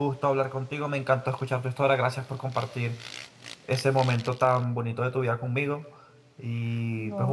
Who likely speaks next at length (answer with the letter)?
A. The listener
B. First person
B